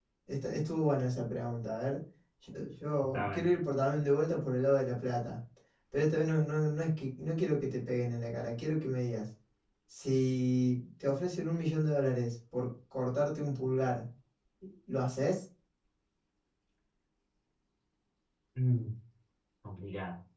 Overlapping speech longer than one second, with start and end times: none

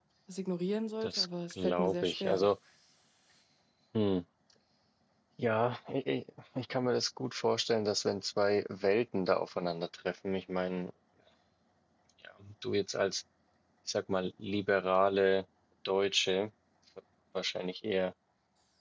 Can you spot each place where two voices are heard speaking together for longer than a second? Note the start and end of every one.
1.0-2.5

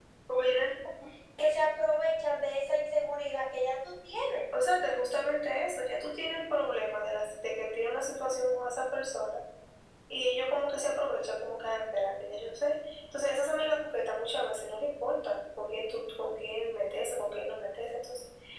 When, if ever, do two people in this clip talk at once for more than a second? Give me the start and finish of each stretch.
none

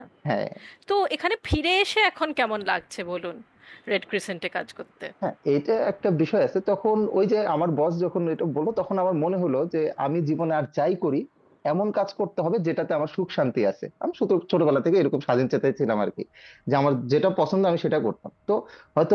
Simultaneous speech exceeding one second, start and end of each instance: none

